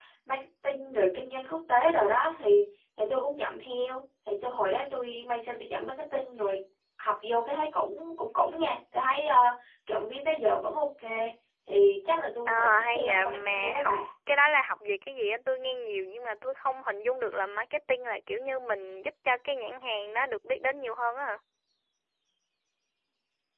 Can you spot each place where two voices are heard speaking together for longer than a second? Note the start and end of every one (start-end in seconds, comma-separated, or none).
12.5-13.9